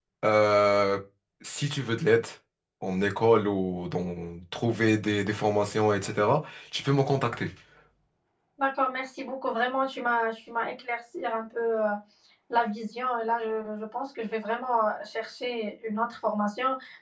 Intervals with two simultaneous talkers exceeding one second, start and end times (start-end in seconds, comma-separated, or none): none